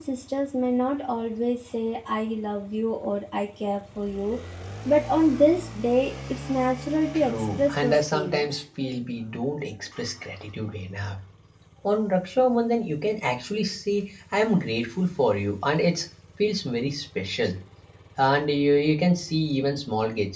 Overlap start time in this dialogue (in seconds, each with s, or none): 7.1 s